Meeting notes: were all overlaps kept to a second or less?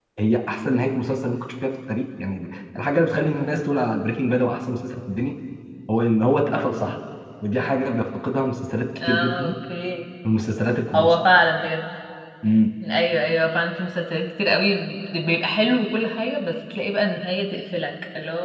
Yes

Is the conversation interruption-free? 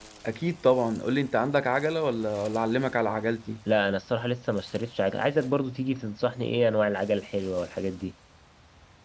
Yes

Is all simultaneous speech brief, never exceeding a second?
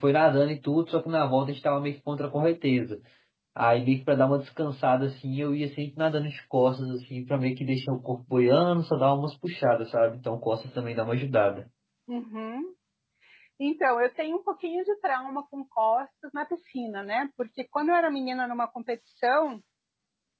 Yes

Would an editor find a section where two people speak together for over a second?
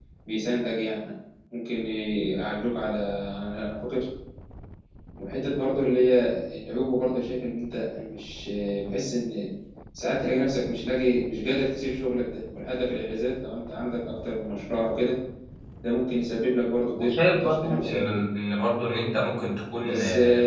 Yes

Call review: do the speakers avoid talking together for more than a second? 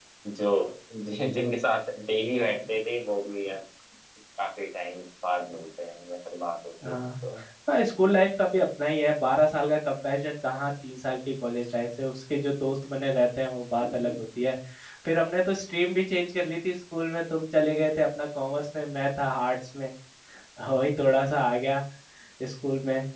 Yes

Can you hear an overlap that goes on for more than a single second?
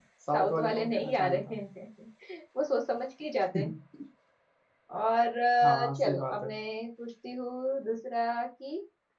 Yes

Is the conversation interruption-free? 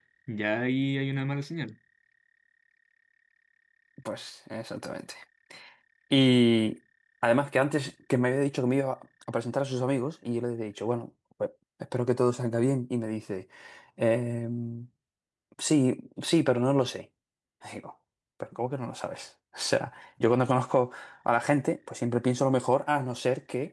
Yes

